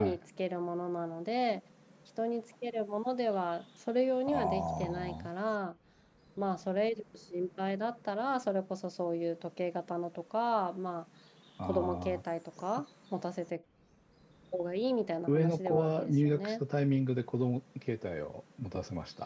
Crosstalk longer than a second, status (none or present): present